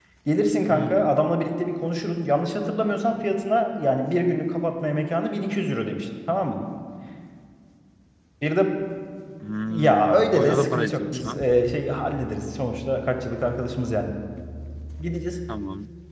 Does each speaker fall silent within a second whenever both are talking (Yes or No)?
No